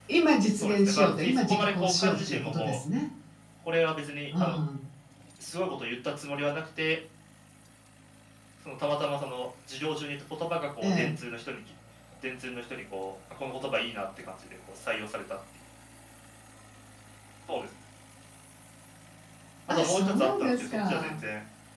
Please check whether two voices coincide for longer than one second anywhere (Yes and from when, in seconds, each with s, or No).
Yes, from 0.6 s